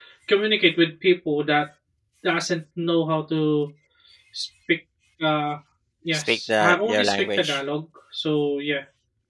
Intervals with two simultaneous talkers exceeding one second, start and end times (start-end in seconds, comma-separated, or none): 6.1-7.6